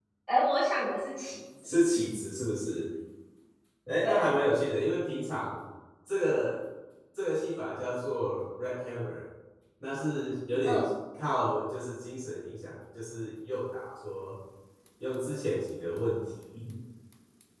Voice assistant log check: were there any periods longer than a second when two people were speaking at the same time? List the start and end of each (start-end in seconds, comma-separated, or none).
none